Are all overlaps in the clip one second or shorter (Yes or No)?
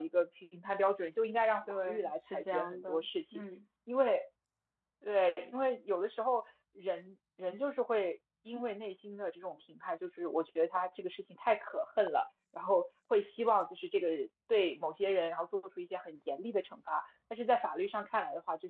No